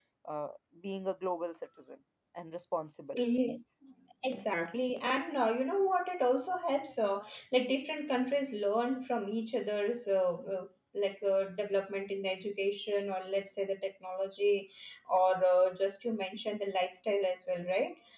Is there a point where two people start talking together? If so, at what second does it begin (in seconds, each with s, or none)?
none